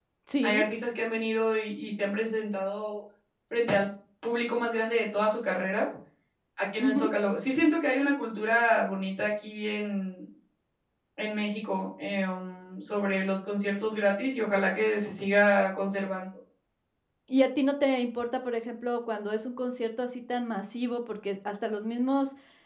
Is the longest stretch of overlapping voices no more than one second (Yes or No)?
Yes